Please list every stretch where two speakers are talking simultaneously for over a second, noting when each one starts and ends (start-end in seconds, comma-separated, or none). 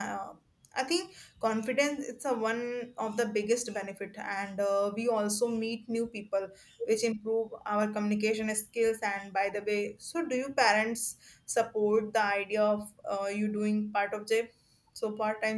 none